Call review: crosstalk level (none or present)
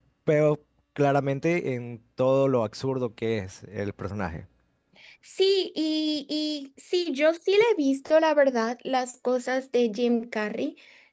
none